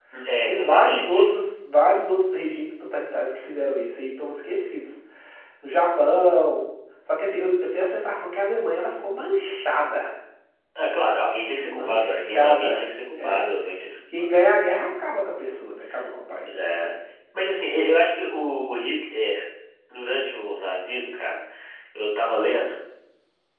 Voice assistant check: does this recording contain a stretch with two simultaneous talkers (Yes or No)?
Yes